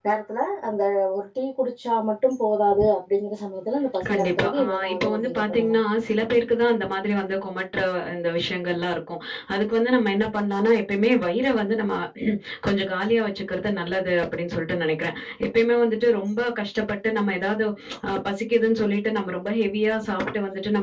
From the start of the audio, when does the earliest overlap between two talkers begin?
4.0 s

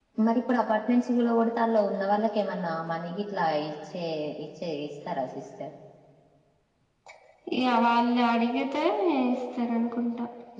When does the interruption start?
none

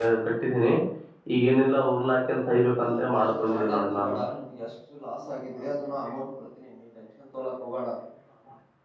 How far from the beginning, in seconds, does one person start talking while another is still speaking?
2.8 s

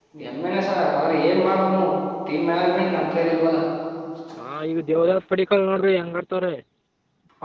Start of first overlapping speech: none

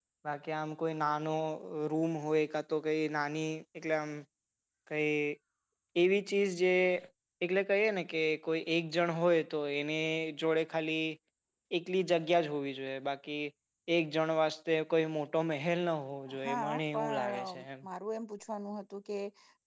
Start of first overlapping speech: 16.3 s

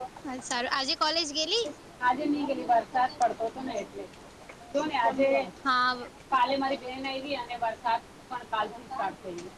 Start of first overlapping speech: none

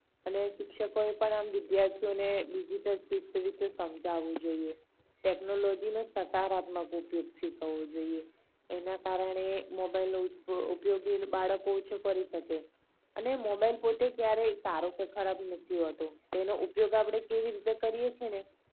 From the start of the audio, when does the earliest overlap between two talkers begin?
none

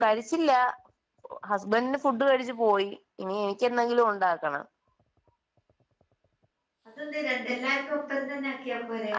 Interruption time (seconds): none

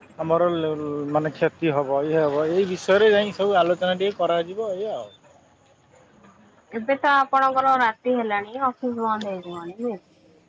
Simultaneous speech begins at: none

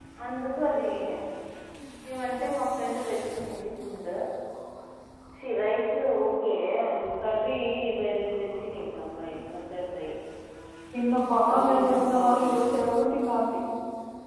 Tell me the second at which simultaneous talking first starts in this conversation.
11.5 s

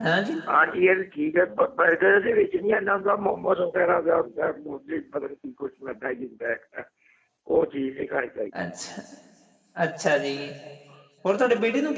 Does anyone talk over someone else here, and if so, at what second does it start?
none

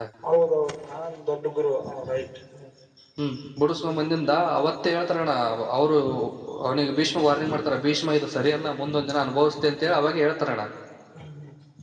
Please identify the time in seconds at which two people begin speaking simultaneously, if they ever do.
none

